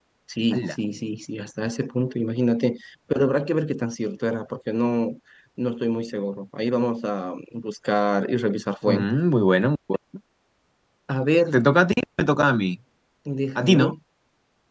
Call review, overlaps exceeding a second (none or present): none